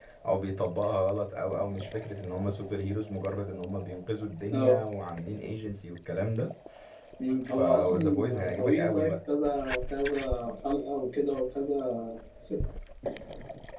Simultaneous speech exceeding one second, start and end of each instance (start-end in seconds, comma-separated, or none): 7.6-9.1